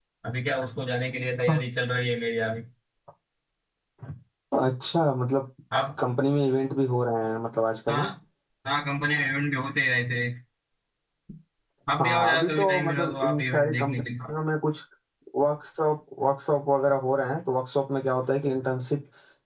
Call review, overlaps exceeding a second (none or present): present